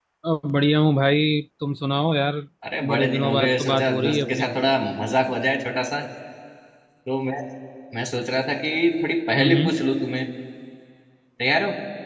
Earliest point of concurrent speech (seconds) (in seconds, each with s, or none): 2.9 s